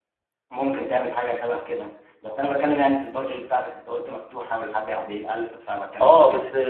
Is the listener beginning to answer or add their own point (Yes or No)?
Yes